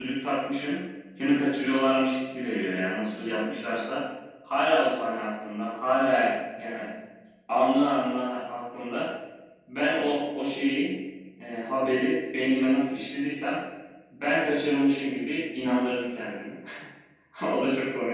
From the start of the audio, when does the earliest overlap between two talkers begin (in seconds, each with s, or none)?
none